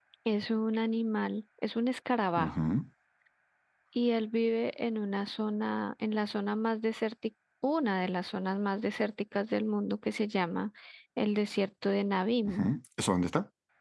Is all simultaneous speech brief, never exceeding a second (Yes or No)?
Yes